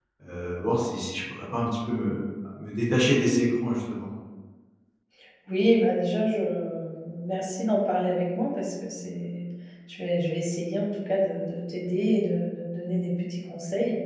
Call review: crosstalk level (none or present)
none